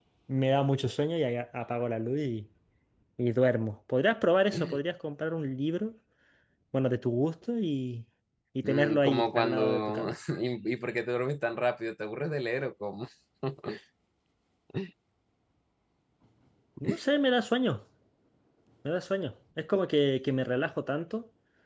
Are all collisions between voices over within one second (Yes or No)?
No